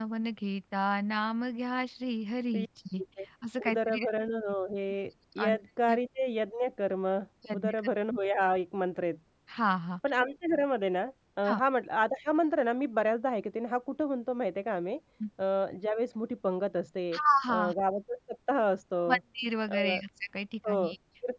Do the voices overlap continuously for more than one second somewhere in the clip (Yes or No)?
No